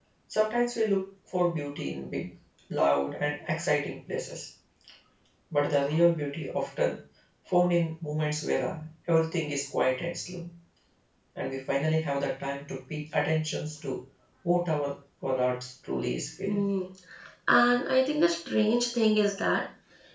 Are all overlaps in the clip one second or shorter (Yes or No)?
Yes